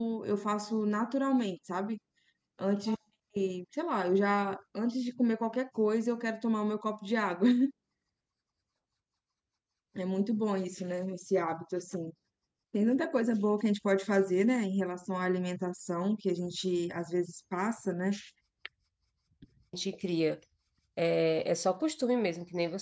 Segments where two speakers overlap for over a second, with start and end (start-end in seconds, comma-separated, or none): none